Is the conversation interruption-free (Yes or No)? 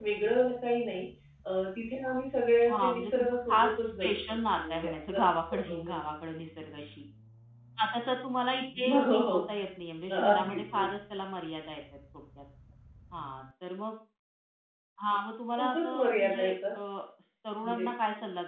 No